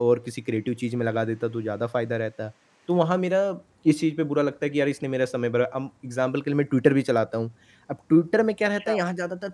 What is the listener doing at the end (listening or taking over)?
listening